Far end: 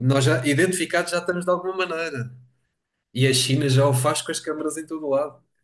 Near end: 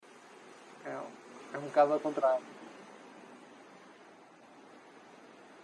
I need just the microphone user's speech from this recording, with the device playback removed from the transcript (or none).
É, é um bocado ao contrário.